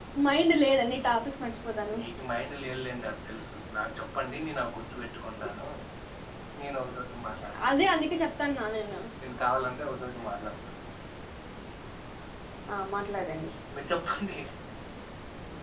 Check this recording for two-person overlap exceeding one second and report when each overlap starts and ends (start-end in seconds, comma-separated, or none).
none